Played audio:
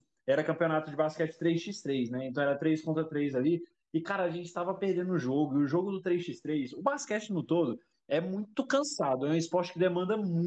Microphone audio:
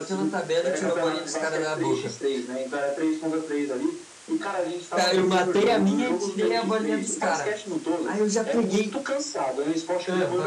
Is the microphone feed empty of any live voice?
No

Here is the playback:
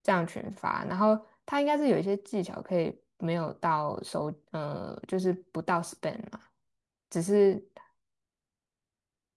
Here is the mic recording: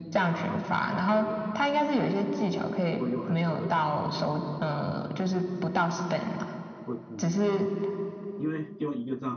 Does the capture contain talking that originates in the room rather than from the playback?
Yes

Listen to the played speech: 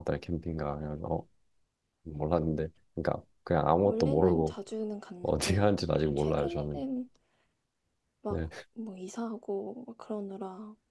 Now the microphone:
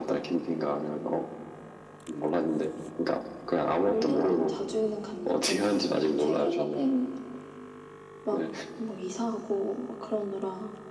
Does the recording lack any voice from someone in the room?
Yes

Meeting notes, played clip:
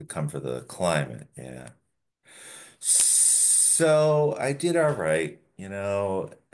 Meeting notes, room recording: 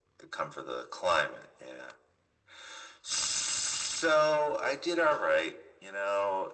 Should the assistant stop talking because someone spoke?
No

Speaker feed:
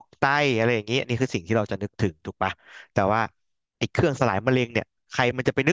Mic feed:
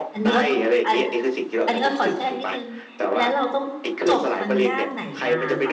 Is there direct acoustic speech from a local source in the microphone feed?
Yes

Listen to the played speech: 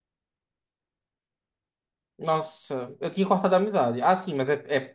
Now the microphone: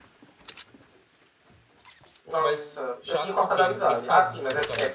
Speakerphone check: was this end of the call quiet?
No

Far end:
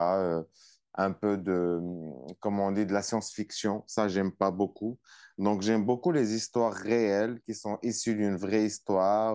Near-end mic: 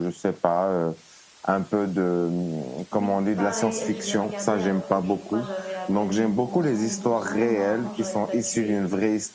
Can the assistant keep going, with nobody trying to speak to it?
No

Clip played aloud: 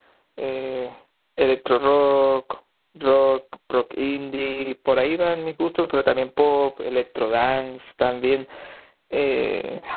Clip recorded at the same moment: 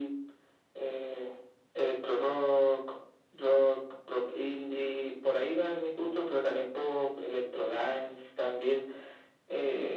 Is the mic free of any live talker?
Yes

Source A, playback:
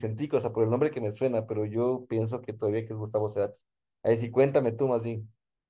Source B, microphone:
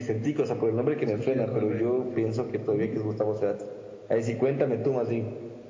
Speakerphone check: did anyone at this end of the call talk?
Yes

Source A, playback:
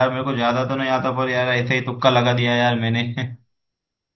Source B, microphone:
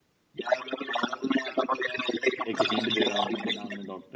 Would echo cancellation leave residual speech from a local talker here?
Yes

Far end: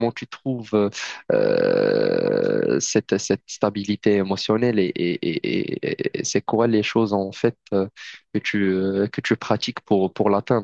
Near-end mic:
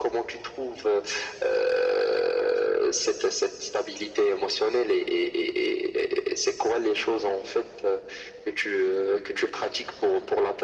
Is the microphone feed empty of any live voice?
Yes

